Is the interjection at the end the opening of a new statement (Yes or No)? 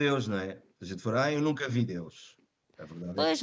Yes